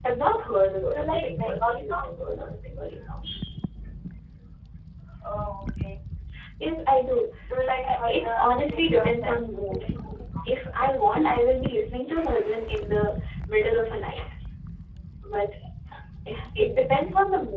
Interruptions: present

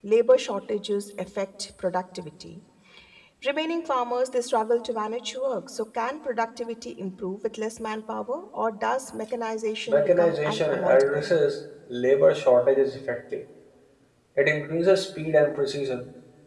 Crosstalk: present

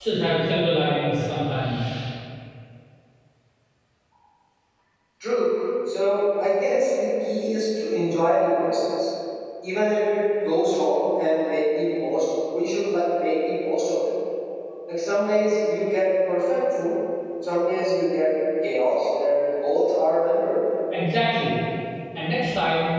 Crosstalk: none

